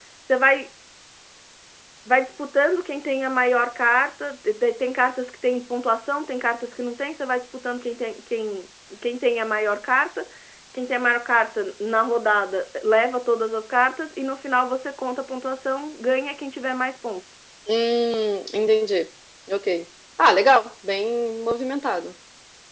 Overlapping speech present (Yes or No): No